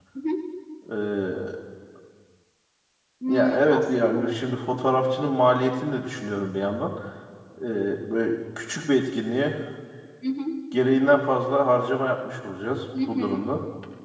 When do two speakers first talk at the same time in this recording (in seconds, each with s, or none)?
3.3 s